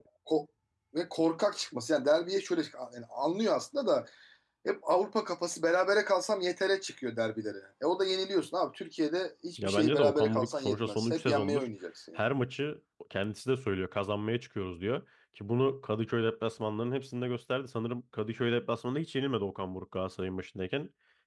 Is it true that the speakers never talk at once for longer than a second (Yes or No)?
No